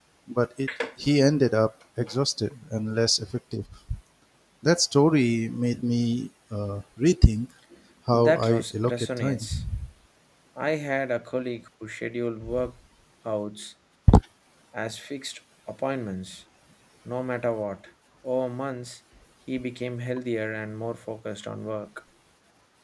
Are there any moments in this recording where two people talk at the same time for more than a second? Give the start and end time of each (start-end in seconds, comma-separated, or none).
8.1-9.5